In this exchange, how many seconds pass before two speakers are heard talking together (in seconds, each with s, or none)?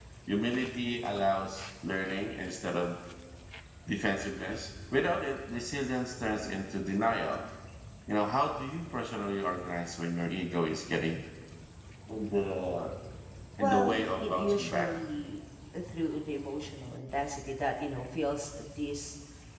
13.6 s